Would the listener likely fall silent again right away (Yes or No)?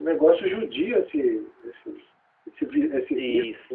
No